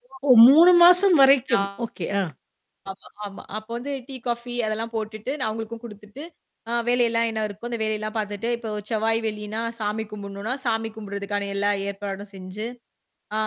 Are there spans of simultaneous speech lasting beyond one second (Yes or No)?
No